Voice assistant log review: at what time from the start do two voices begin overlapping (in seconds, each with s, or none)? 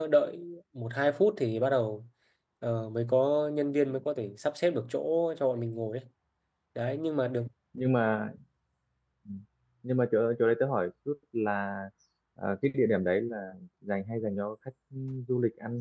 none